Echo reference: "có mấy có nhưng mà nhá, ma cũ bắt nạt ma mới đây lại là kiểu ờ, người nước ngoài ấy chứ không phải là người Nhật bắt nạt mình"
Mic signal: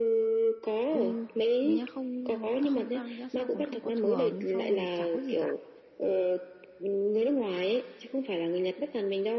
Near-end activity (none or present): present